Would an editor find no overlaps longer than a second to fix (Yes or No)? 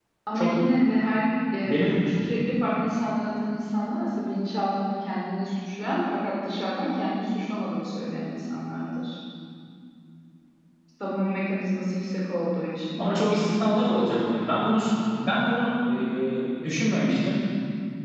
Yes